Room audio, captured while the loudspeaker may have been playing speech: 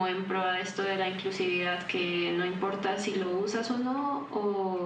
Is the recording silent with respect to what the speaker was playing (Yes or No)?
No